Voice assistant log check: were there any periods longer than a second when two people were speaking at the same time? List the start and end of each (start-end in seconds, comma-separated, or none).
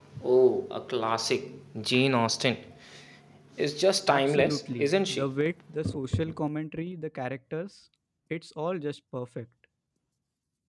4.1-5.3